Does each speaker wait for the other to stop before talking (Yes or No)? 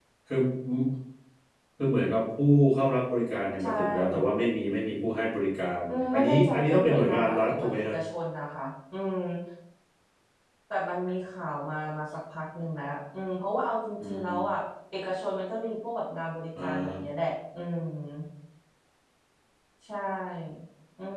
No